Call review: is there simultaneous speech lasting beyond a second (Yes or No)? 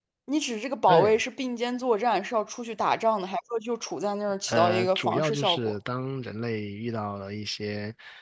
Yes